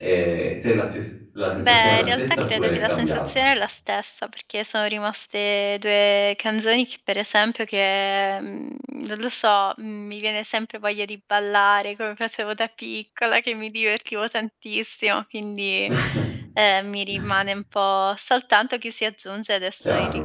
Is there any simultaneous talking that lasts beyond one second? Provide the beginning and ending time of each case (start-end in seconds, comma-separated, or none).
1.6-3.2